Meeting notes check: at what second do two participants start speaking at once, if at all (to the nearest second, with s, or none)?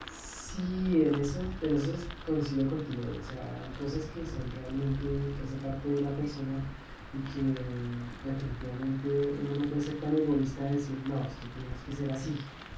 none